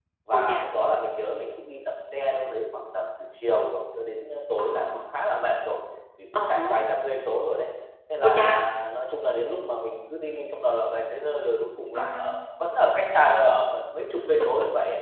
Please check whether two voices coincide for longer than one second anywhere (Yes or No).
No